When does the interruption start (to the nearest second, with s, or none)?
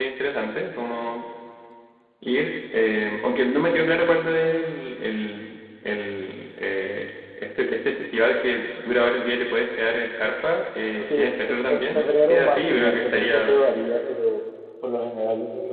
11 s